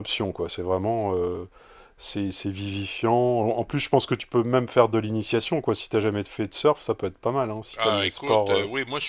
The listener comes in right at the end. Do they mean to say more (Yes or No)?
Yes